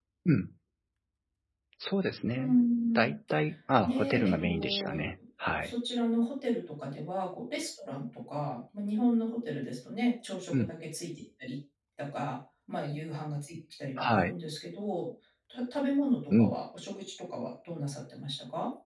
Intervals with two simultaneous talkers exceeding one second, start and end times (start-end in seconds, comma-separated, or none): 3.8-5.1